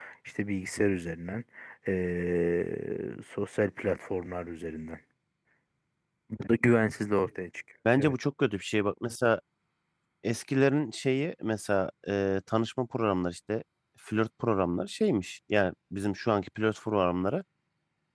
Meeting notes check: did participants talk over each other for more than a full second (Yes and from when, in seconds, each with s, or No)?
No